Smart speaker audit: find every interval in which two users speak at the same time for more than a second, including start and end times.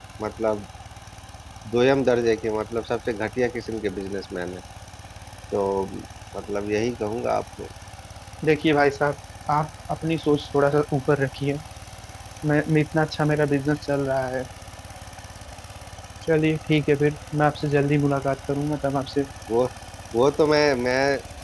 none

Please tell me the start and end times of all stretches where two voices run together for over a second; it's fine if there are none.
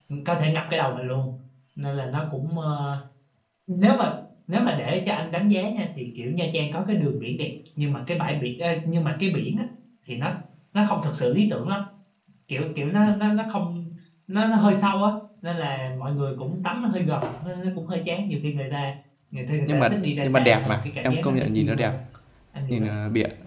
19.7-21.9

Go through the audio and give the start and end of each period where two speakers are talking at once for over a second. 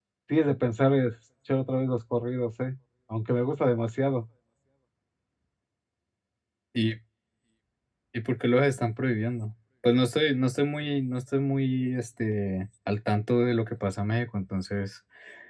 none

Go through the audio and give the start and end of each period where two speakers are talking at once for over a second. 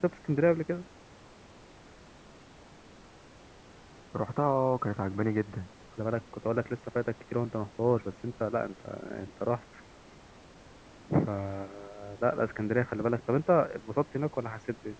none

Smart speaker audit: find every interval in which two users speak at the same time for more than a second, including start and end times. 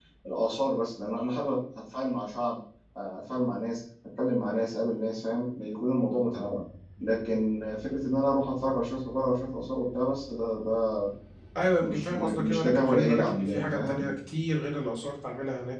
11.8-14.1

